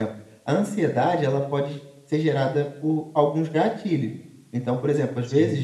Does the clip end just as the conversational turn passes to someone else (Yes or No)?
No